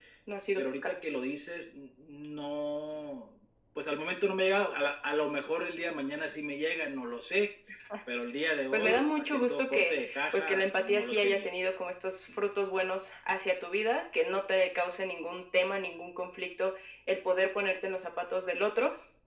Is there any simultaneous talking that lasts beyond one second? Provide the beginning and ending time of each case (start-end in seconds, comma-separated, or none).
8.7-11.5